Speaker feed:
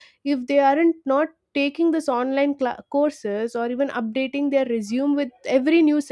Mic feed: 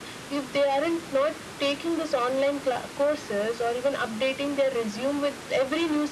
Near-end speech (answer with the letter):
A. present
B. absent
B